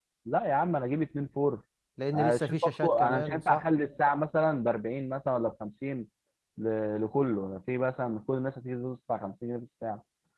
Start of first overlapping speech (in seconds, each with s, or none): 2.1 s